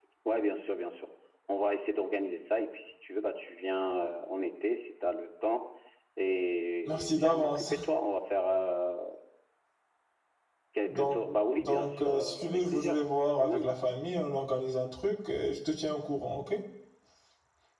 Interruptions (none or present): present